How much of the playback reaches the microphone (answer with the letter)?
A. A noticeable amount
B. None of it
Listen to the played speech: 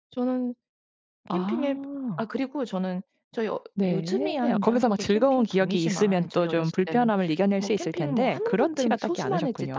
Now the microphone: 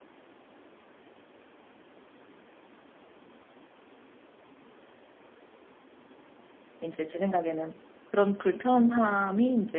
B